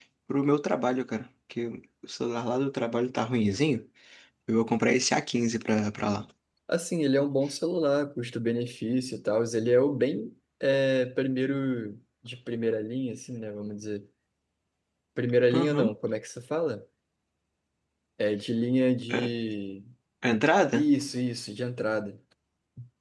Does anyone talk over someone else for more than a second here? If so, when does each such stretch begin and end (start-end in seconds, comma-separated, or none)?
none